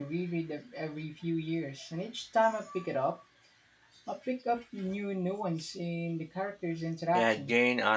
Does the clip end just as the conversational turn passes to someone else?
Yes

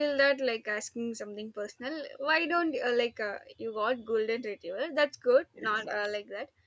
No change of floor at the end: Yes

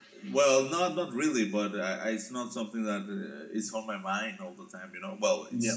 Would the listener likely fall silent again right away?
No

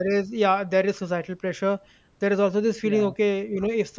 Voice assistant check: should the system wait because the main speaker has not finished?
Yes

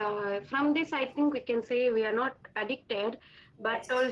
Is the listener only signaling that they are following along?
Yes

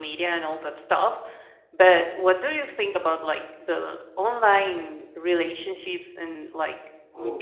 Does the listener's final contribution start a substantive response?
No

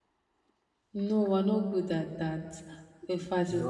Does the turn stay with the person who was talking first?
Yes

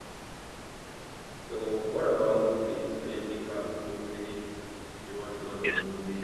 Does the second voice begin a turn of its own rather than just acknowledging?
Yes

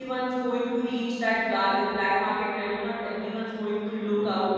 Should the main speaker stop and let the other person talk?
No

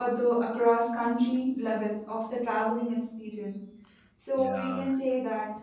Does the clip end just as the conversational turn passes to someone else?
No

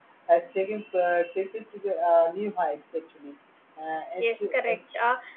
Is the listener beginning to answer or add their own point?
Yes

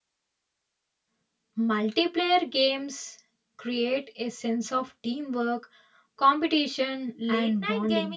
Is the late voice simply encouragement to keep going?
No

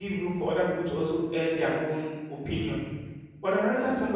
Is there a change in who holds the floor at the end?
No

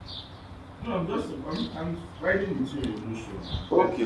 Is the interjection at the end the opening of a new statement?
Yes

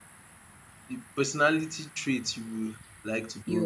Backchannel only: No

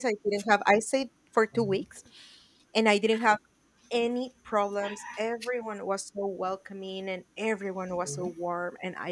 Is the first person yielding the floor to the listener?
No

